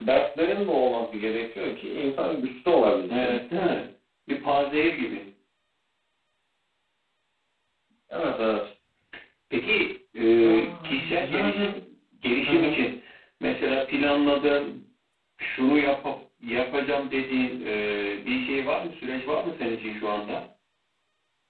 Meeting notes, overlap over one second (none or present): present